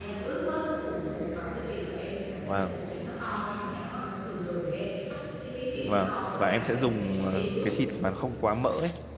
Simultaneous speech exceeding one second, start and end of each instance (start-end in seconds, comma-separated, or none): 5.8-7.7